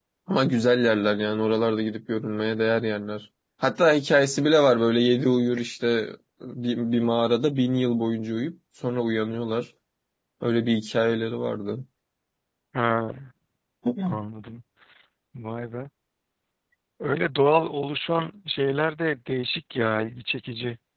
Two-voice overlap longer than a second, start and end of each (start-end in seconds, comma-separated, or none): none